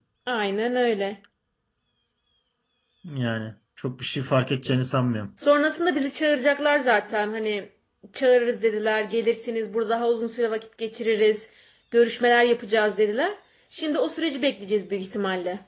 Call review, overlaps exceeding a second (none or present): none